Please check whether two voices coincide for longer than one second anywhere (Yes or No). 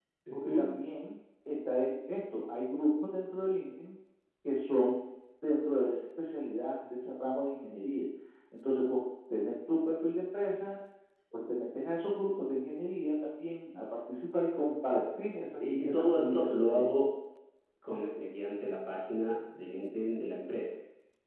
Yes